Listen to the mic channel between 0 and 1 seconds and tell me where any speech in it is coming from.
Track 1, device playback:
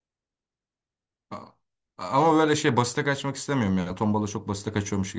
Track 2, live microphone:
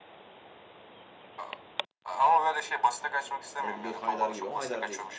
neither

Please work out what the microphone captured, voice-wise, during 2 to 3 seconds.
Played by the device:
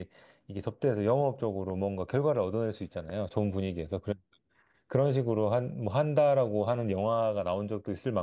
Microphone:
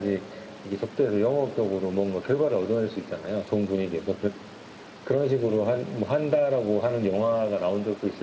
echo only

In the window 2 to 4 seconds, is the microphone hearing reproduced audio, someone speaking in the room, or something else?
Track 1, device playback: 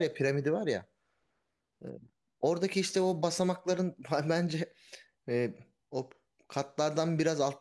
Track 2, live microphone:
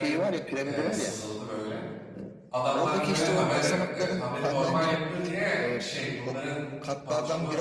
both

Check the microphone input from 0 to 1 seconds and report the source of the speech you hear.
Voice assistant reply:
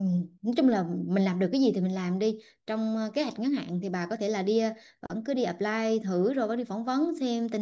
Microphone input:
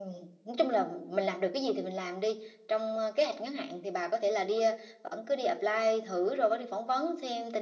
echo only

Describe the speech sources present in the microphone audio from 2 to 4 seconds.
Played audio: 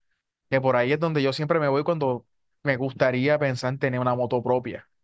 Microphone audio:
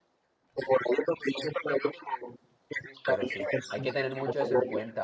both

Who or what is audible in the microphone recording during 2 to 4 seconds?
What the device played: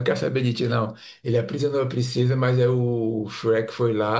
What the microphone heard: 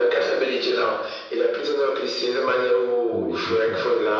both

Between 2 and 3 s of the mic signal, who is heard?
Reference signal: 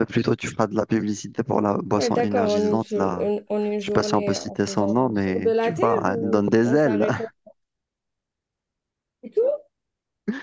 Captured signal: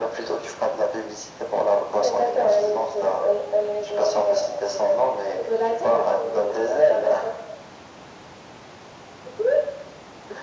echo only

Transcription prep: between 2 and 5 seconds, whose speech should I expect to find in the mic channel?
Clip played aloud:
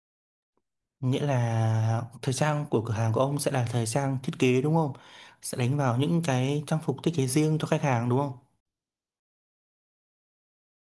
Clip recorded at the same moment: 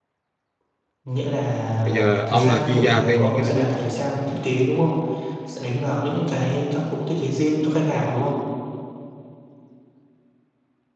both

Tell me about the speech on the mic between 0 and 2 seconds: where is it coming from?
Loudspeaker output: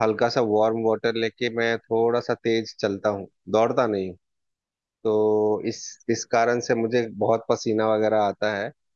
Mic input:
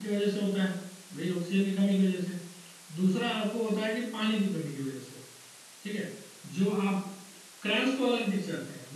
user only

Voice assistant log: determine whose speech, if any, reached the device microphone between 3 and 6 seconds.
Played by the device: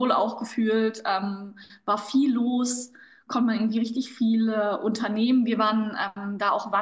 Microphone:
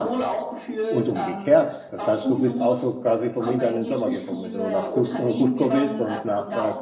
both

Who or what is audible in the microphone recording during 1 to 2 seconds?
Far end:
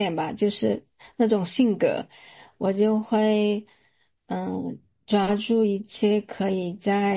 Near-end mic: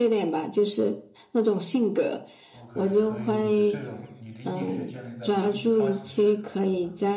echo only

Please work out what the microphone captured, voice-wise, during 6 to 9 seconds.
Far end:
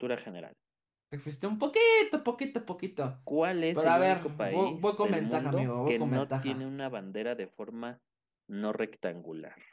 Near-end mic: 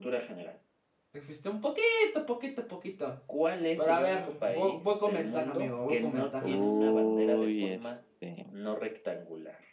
both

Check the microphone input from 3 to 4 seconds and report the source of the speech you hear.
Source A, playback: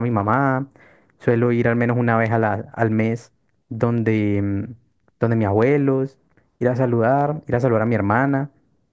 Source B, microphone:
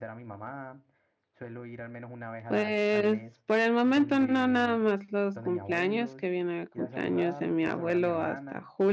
both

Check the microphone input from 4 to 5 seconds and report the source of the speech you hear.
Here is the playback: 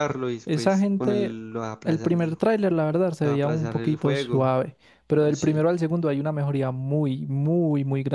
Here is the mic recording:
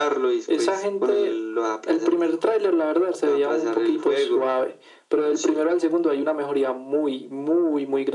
echo only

